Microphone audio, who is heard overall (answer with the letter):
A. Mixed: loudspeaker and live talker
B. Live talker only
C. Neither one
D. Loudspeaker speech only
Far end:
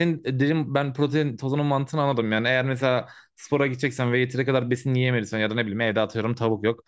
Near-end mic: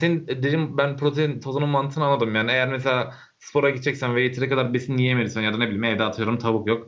D